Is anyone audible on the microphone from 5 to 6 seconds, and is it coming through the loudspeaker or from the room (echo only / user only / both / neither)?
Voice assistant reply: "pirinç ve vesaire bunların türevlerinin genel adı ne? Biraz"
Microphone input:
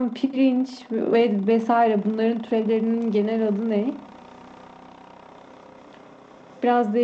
neither